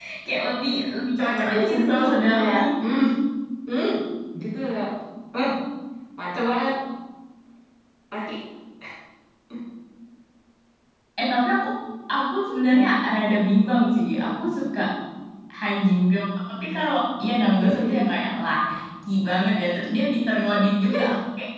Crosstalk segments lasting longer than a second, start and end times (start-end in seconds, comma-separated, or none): 1.2-2.6